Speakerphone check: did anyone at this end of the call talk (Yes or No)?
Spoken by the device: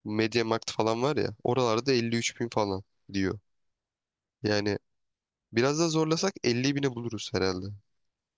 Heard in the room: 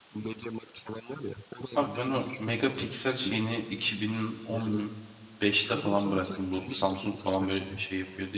Yes